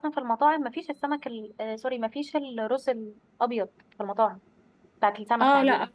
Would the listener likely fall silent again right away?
No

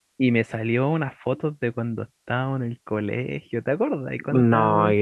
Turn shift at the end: Yes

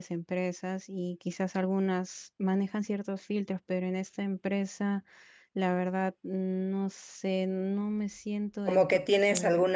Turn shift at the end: Yes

